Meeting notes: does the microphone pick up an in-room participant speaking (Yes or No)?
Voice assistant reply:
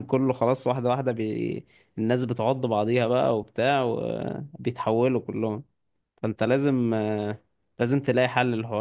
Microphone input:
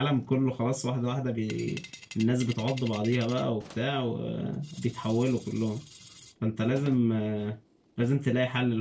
No